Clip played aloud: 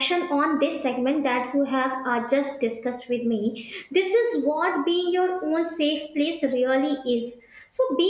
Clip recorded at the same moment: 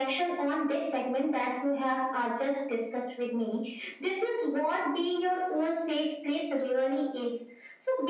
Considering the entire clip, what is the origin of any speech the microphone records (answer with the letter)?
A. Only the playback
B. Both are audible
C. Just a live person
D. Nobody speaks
A